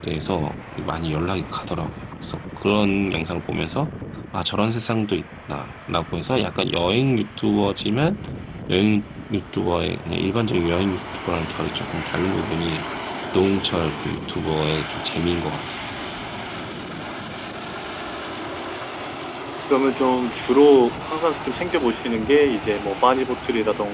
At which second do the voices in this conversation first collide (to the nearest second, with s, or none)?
none